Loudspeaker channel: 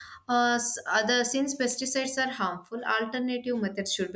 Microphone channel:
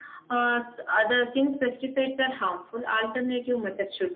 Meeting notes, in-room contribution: none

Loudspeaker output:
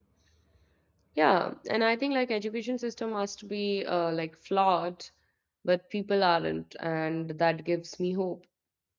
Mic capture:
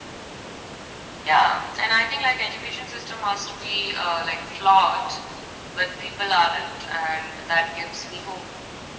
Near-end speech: none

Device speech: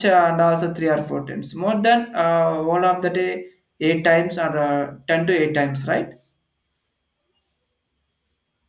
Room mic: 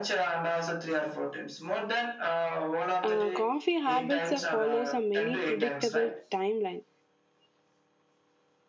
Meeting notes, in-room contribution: present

